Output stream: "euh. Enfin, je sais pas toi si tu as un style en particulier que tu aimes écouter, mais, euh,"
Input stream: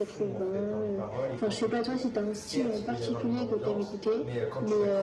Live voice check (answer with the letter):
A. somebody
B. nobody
A